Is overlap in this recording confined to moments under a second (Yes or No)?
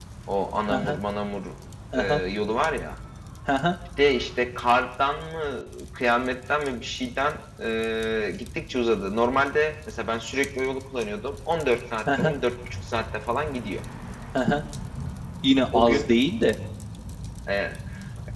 Yes